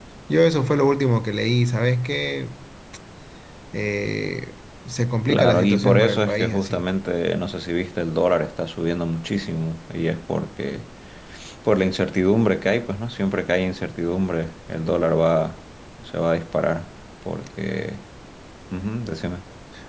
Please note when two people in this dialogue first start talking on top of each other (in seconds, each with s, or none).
5.3 s